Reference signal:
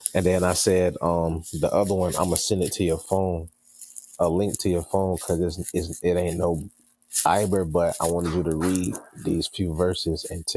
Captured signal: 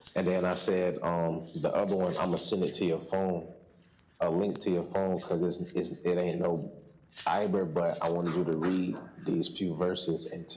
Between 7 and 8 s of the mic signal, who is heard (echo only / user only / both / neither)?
echo only